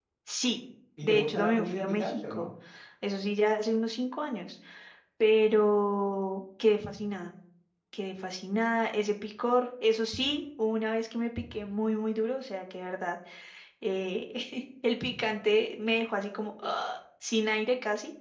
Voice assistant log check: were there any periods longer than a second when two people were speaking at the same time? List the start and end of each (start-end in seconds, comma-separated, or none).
1.0-2.5